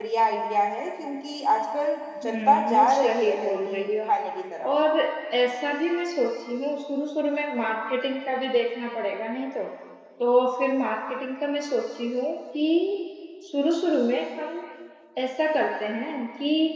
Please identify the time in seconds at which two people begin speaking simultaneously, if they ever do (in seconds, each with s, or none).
2.2 s